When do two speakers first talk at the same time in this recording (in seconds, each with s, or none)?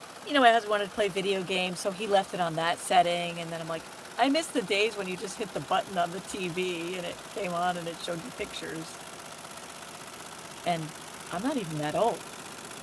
none